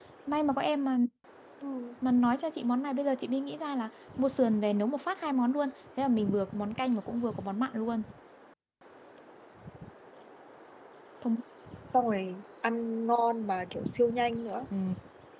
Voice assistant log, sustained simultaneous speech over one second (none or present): none